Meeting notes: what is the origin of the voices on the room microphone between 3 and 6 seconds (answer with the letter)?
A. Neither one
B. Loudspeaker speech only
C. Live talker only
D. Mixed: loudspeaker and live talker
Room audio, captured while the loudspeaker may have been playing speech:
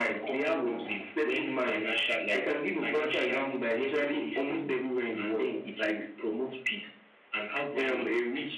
B